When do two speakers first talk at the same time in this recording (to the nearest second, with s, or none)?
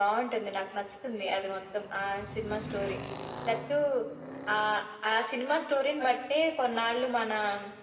none